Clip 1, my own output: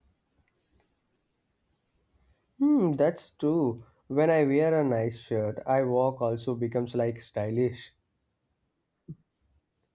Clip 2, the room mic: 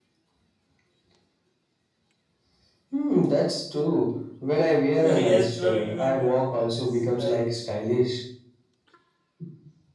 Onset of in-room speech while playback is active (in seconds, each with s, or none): 5.0 s